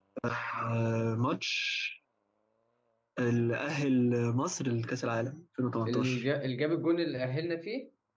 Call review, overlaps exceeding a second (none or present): none